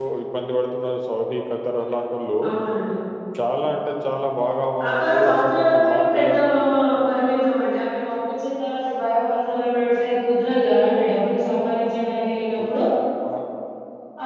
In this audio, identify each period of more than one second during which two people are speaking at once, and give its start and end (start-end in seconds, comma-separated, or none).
4.9-6.3